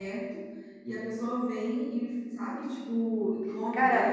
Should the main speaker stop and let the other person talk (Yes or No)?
No